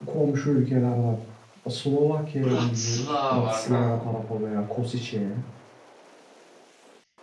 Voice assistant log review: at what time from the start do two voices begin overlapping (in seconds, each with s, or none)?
2.4 s